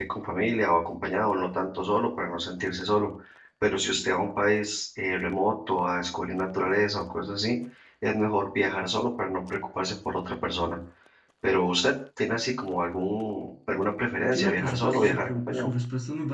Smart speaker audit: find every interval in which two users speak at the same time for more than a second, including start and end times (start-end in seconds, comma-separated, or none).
14.3-15.7